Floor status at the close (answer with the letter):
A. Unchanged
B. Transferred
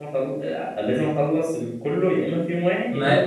B